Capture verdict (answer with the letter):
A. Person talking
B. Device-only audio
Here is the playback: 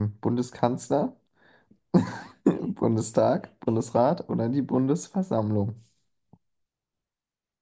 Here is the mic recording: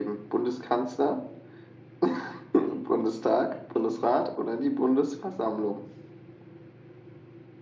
B